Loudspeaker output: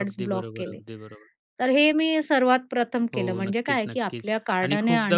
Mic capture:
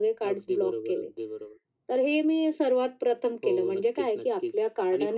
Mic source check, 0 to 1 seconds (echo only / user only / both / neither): echo only